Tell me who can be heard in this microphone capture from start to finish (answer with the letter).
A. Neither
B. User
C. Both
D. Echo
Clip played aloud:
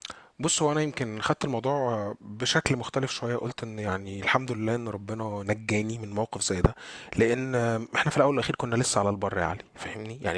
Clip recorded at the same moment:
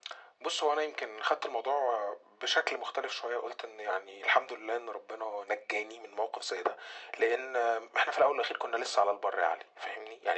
D